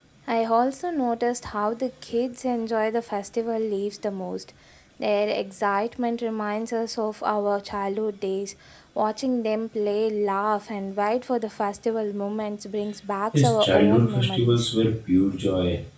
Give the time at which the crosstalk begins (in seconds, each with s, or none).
13.3 s